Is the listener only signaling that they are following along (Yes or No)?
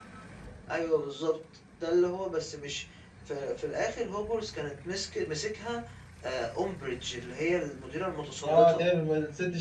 No